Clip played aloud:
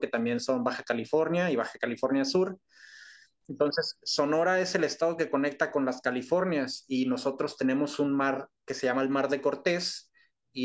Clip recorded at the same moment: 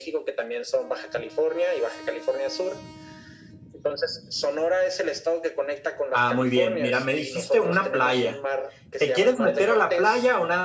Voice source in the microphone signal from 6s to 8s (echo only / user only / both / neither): both